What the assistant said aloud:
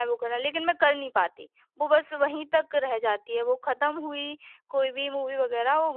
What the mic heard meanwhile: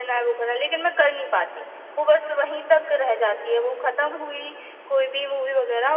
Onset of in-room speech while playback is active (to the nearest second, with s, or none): none